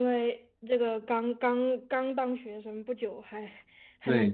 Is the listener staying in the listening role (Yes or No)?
No